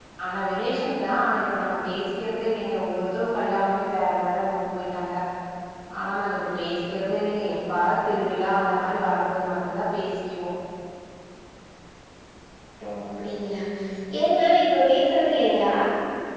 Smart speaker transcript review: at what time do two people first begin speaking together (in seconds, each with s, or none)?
none